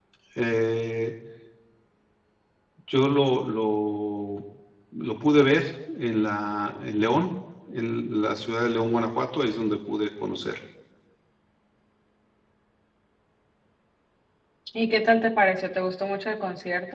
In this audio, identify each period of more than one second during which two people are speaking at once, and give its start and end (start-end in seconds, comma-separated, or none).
none